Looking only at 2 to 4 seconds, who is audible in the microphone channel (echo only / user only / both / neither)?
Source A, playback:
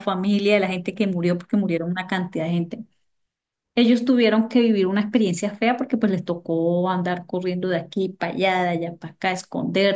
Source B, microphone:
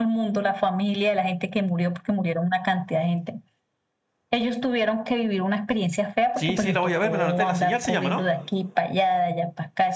echo only